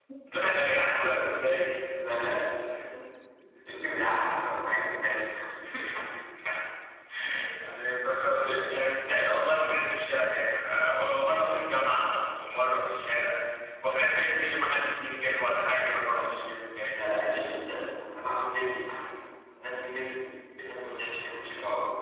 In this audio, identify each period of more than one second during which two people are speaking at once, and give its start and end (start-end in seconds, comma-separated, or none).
none